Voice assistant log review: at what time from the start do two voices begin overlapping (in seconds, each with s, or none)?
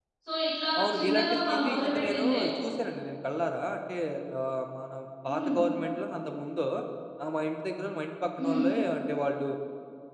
0.8 s